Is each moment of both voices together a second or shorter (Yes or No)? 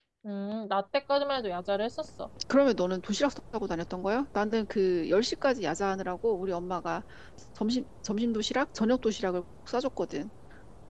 Yes